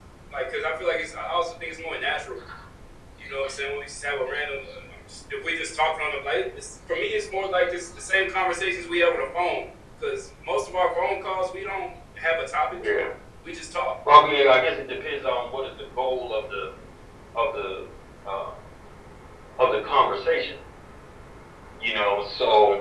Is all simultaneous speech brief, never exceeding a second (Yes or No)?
Yes